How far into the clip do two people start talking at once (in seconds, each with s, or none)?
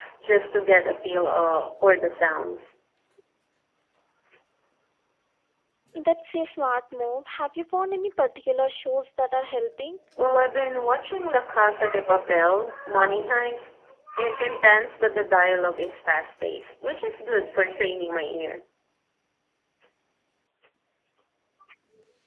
none